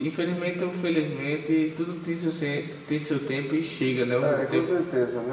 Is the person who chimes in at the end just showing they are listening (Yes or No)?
No